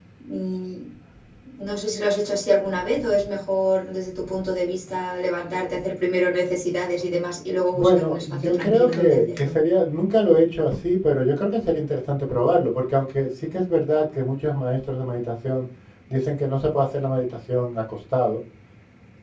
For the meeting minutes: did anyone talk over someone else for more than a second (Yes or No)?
Yes